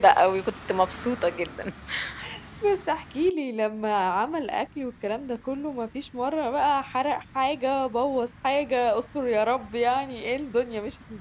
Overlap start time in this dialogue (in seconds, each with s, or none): none